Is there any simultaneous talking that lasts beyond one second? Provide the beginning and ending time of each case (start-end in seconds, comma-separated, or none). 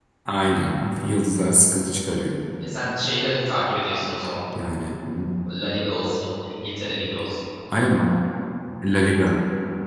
none